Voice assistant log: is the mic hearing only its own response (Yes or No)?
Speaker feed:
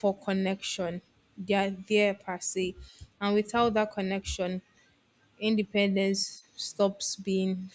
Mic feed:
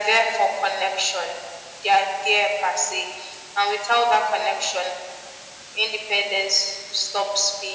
Yes